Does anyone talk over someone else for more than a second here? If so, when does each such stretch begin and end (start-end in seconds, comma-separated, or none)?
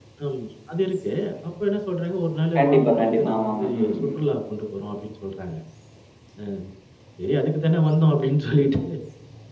2.6-4.2